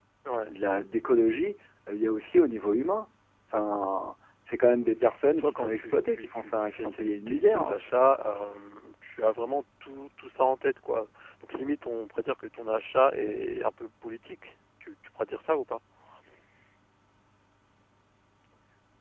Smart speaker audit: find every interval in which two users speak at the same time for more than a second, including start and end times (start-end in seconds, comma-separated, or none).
5.2-7.8